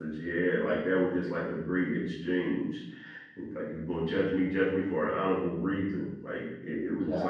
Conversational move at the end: listening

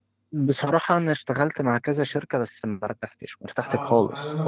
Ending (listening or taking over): taking over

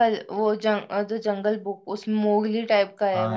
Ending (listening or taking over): taking over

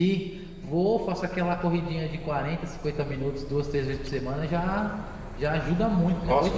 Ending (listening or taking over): taking over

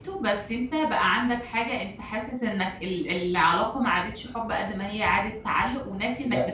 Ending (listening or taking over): taking over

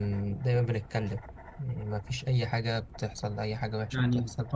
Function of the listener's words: taking over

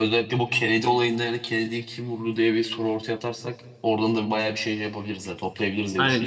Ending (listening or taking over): taking over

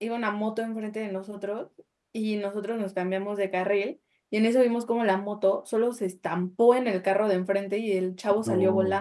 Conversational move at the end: listening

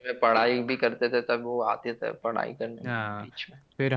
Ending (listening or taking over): taking over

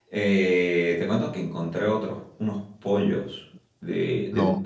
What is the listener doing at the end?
listening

